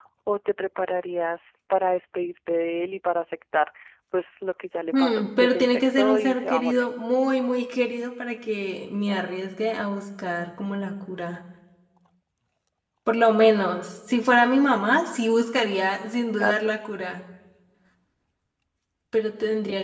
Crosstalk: present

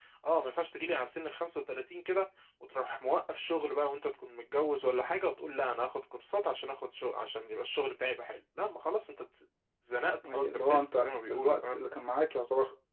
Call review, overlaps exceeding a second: present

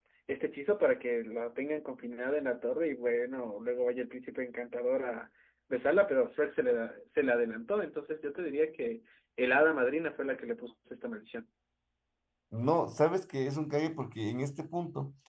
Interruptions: none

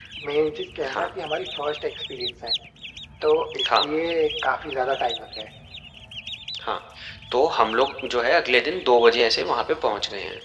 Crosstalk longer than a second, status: none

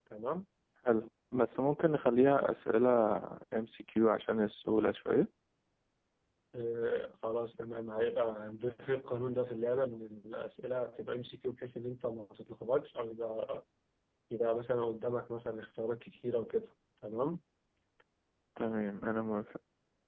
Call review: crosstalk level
none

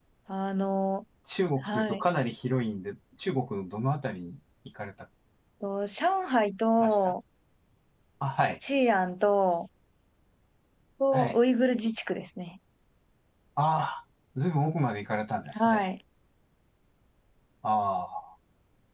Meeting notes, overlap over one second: none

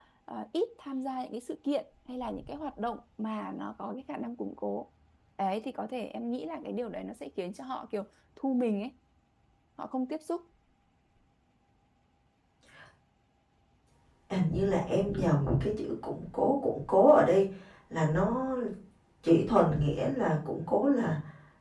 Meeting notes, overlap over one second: none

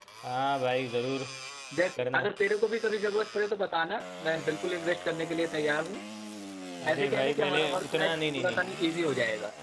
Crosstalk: present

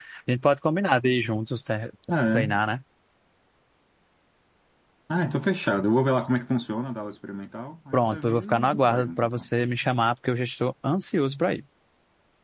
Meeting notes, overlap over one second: present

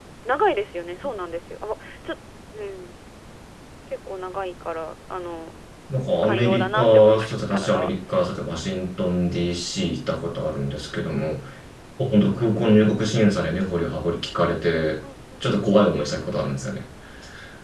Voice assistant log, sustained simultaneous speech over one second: present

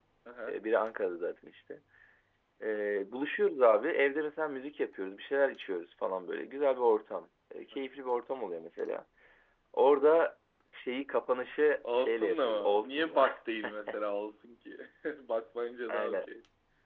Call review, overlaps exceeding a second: present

